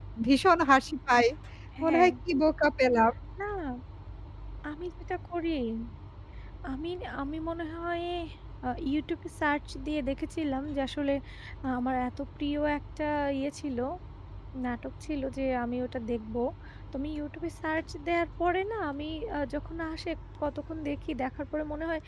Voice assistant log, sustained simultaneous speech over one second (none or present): none